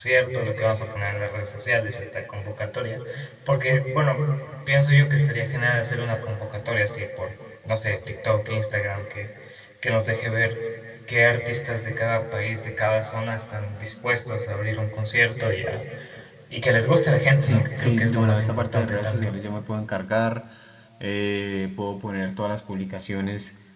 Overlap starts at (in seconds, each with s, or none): 17.4 s